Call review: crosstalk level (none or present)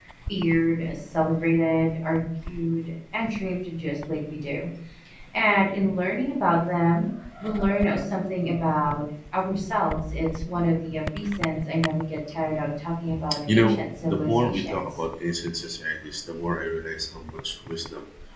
present